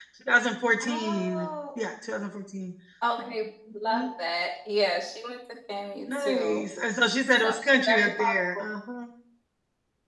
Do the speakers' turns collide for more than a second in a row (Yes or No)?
Yes